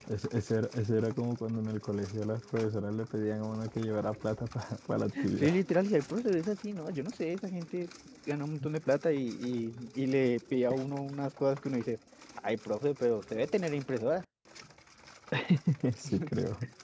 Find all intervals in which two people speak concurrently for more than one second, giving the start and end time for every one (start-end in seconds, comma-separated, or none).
none